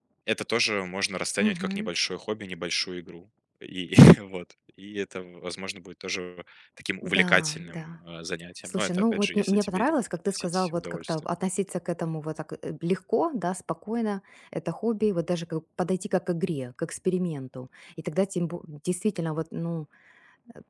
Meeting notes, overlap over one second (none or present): present